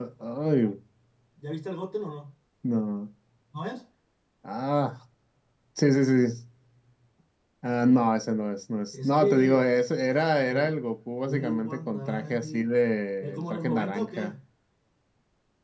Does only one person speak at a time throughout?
No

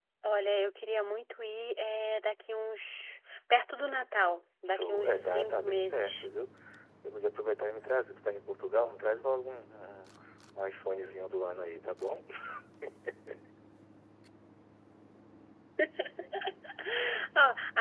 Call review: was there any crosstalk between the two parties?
Yes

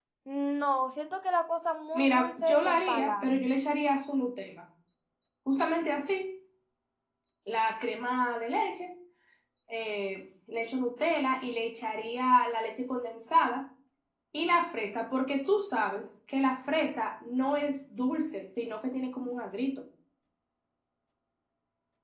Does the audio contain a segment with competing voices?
Yes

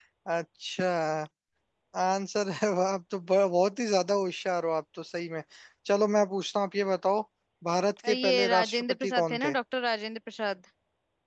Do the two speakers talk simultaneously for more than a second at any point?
Yes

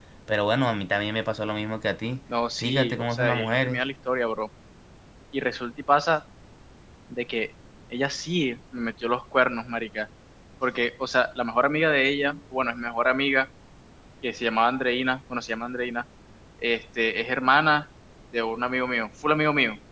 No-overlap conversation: No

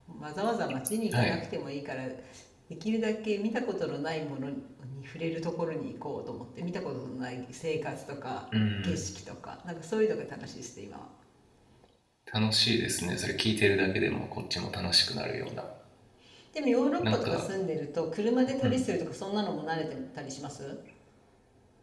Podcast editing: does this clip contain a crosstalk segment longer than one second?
No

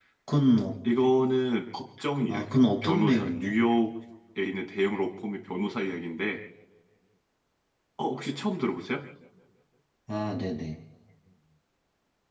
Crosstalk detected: Yes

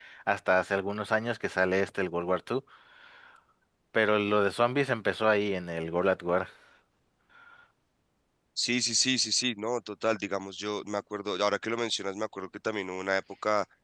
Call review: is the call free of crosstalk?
Yes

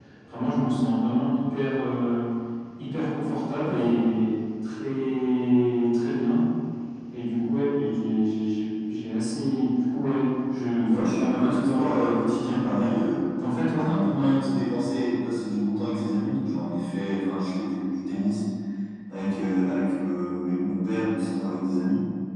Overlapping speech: Yes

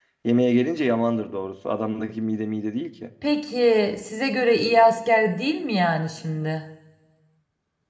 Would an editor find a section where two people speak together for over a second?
No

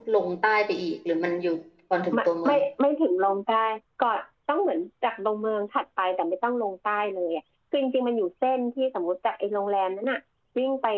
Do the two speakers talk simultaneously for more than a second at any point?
No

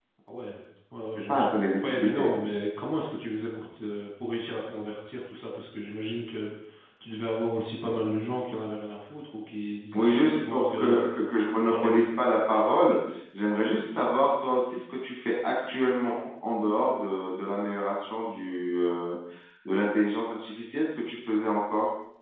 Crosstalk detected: Yes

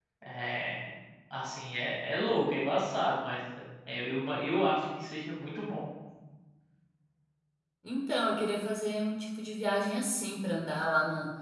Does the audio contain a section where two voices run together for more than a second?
No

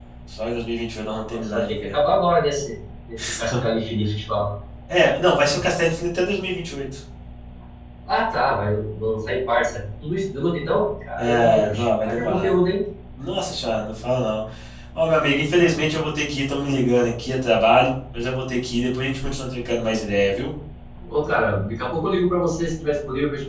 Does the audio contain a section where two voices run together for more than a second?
Yes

